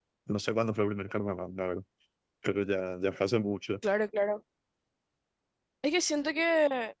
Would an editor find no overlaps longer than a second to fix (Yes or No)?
Yes